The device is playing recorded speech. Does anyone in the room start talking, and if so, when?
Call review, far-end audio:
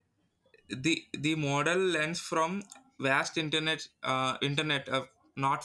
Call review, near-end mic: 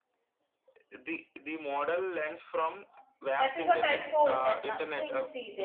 3.4 s

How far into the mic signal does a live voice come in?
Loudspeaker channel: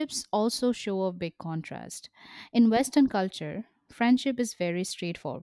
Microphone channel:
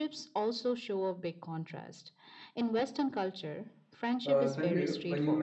4.2 s

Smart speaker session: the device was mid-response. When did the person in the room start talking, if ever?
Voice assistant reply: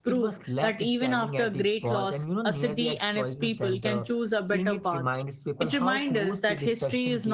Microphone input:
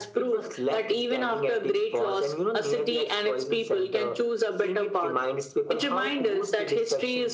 none

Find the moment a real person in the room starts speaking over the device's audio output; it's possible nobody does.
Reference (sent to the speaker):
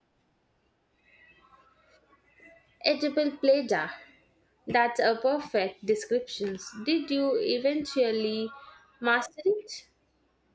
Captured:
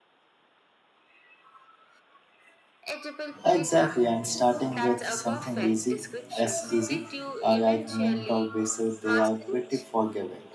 3.4 s

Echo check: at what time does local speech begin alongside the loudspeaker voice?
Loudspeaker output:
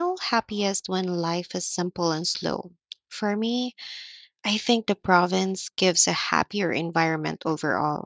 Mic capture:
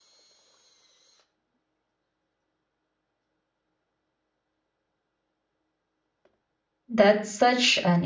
6.9 s

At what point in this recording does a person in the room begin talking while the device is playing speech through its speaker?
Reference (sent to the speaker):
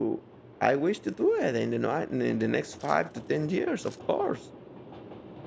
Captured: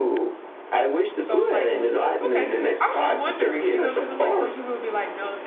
1.2 s

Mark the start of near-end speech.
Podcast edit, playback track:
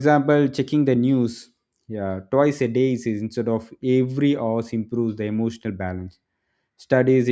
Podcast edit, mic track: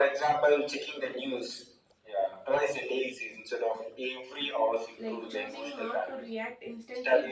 5.0 s

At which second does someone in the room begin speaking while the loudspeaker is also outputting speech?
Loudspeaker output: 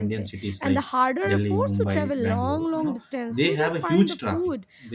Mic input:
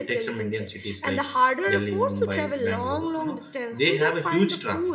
none

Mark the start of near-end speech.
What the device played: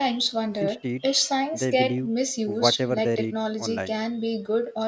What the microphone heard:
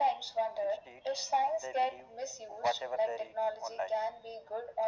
none

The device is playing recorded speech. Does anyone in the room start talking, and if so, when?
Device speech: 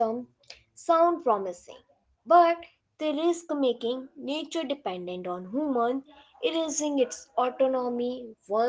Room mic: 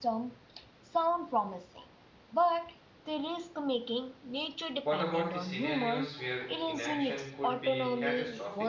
4.8 s

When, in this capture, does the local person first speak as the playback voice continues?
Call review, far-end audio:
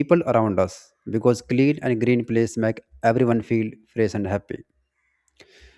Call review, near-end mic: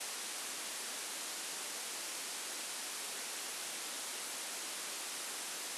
none

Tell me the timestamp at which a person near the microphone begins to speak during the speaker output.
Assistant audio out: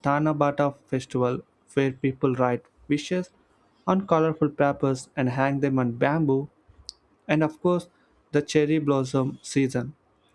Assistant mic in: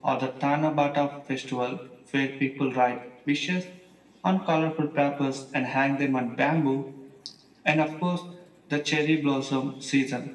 none

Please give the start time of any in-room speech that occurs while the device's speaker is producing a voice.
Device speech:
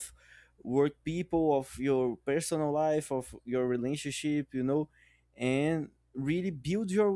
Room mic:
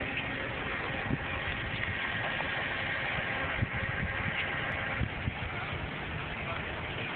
none

